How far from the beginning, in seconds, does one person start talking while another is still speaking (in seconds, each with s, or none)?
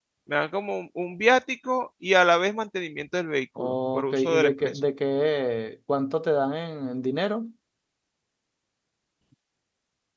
3.6 s